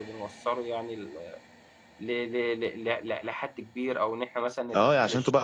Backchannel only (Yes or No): No